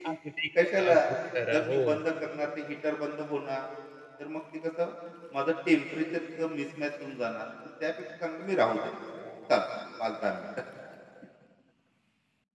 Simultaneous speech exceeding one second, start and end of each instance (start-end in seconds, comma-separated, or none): none